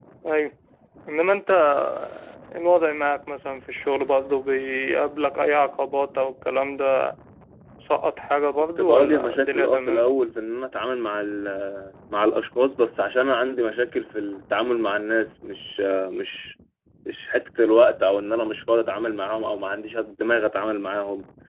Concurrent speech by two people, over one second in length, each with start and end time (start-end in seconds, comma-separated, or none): 8.8-10.1